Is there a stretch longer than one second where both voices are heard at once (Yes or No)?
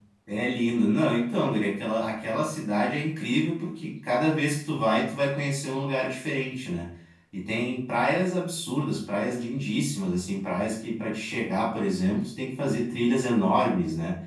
No